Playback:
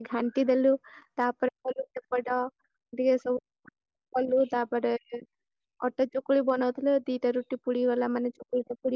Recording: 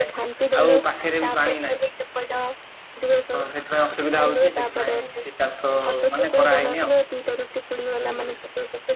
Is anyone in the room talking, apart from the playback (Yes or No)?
Yes